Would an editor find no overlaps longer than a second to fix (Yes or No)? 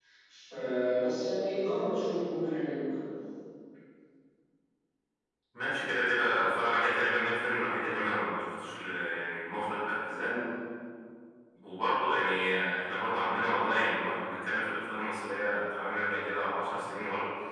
Yes